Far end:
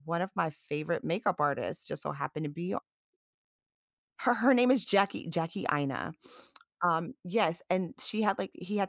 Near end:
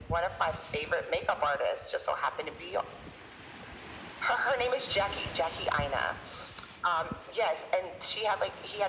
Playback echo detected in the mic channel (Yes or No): Yes